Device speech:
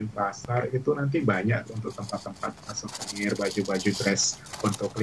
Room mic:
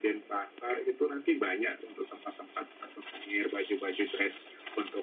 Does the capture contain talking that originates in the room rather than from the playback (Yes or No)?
No